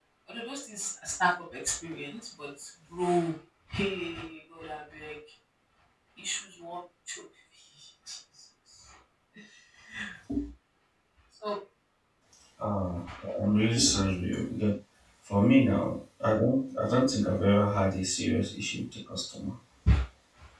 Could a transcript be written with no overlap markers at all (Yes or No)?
Yes